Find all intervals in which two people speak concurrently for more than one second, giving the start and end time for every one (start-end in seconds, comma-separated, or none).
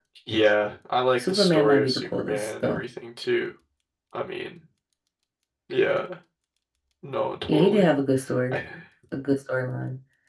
1.3-2.8